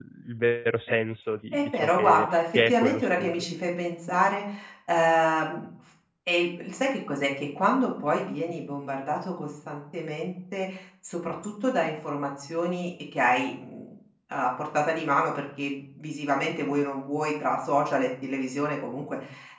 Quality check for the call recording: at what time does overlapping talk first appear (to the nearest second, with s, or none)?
2 s